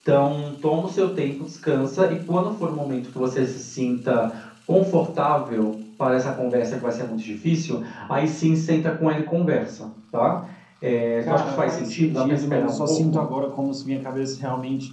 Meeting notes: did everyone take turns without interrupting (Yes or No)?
No